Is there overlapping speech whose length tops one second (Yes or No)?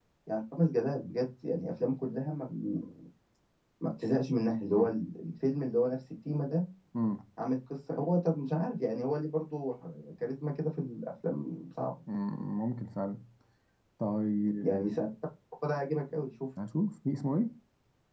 No